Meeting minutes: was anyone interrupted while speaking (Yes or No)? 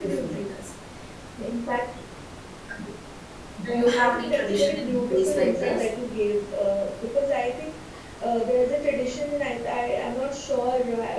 Yes